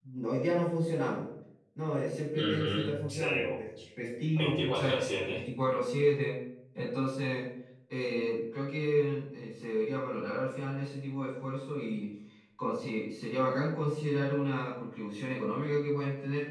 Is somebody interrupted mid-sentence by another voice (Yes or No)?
Yes